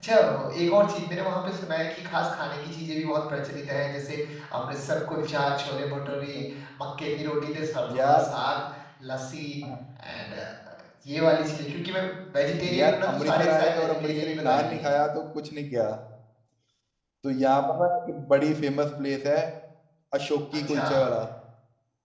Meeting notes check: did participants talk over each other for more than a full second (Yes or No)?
Yes